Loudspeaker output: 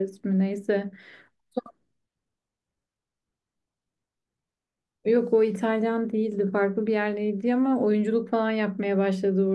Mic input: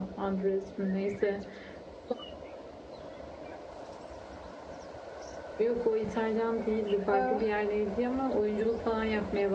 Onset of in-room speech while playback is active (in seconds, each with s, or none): 7.1 s